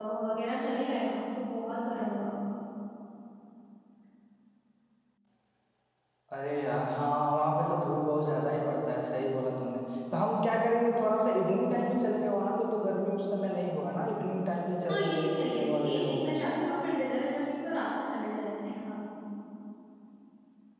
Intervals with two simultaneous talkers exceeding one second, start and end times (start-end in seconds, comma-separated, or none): 14.8-16.4